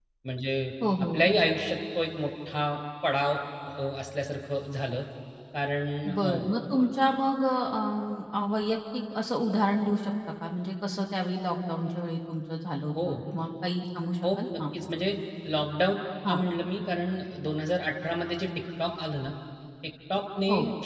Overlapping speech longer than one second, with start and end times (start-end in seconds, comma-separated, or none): none